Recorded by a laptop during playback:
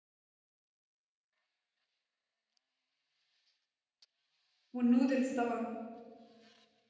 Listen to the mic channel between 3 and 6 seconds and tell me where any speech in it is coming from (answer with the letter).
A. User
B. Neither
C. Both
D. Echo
A